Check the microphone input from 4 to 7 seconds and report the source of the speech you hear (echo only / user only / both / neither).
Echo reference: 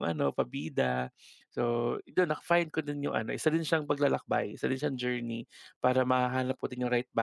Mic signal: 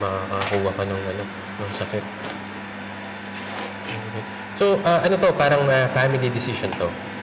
user only